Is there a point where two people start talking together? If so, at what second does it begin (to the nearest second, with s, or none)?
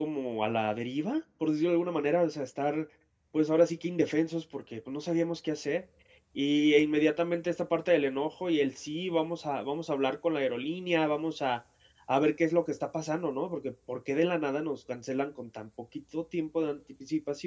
none